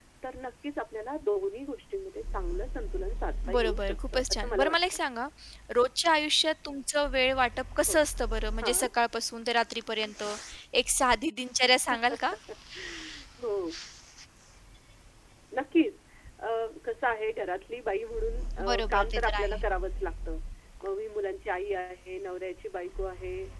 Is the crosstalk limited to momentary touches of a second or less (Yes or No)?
No